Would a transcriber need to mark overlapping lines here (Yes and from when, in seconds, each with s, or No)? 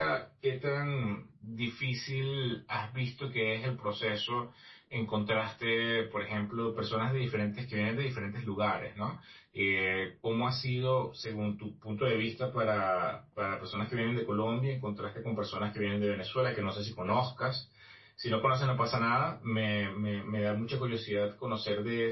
No